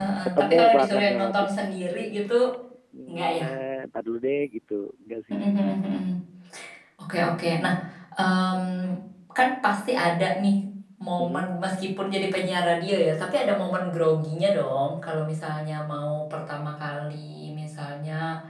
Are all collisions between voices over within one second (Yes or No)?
No